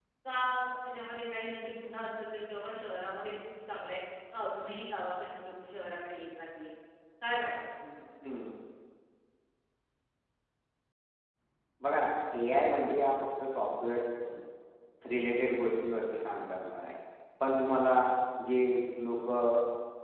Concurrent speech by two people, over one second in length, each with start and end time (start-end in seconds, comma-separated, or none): none